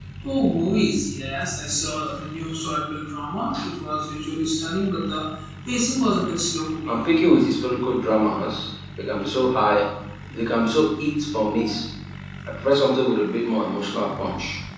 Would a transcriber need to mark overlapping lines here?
No

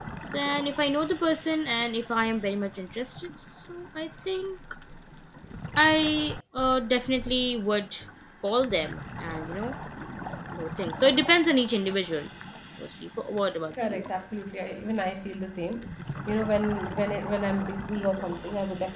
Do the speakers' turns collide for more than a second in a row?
No

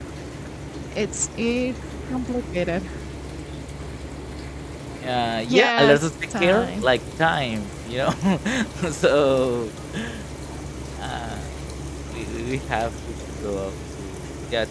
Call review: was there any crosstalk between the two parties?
Yes, from 5.5 s

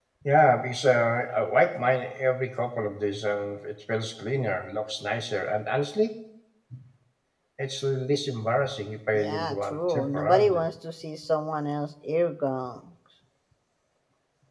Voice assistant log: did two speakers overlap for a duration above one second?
Yes, from 9.1 s

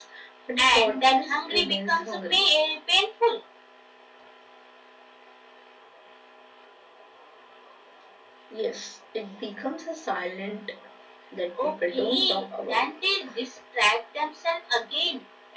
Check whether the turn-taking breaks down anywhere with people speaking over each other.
Yes, from 0.6 s

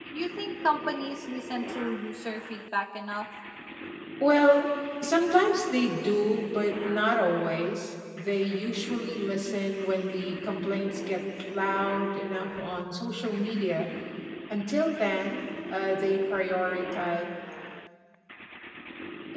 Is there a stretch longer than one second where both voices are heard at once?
No

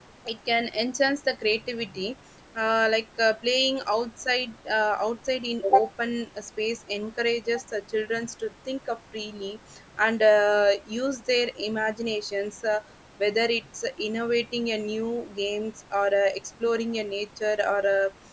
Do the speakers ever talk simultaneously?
No

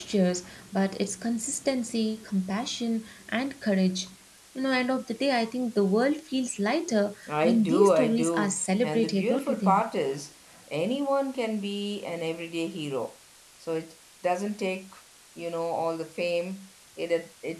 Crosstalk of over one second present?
Yes, from 7.3 s

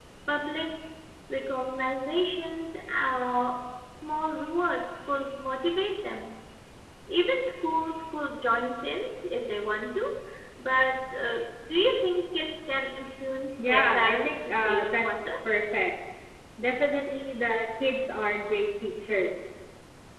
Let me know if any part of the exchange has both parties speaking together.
Yes, from 13.6 s

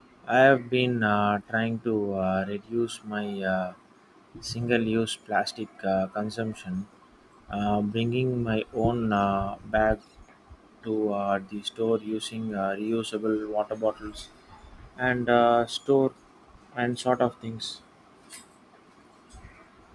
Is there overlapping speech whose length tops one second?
No

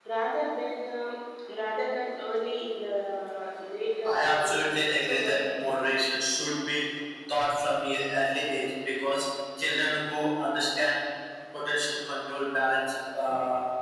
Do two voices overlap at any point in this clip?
Yes, from 4.0 s

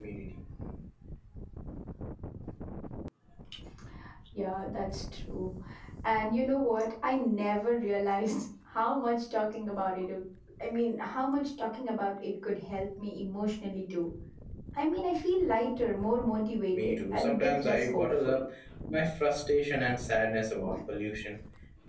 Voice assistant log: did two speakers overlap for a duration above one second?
Yes, from 16.7 s

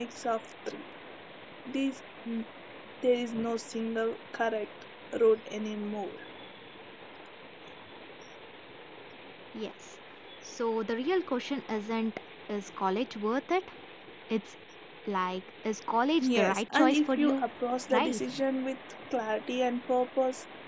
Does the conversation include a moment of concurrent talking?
Yes, from 16.2 s

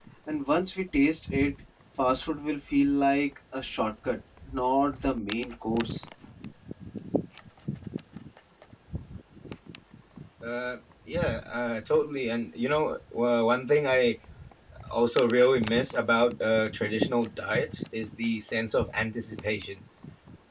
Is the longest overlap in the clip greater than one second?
No

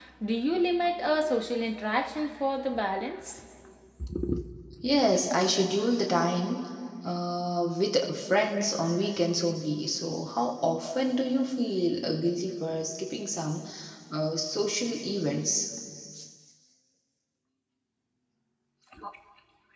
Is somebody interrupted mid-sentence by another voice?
No

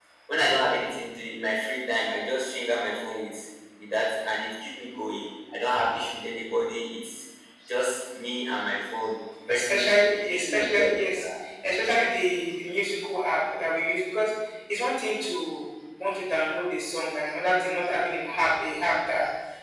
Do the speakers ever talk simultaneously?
Yes, from 9.5 s

